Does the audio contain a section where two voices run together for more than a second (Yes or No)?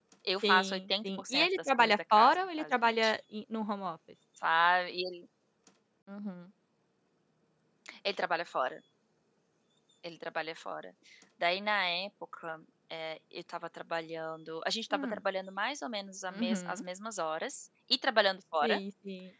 Yes